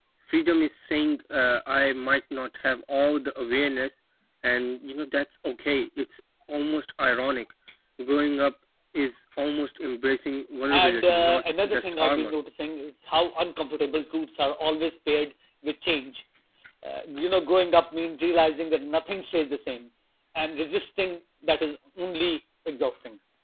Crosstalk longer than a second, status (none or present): present